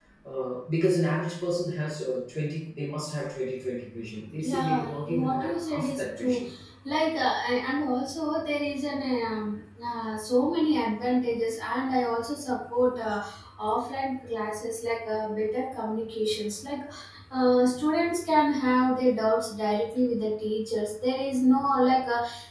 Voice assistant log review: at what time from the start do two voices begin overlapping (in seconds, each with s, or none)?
4.4 s